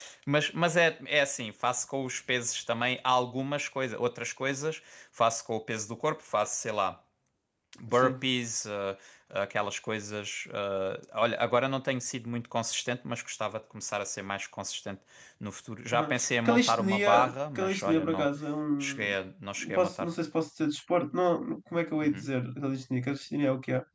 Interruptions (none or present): present